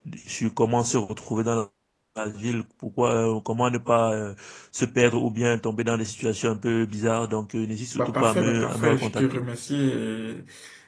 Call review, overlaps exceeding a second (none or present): present